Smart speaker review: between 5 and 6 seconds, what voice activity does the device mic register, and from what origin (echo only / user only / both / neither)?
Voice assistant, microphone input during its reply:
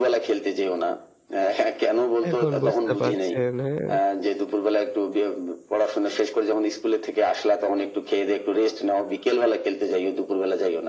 echo only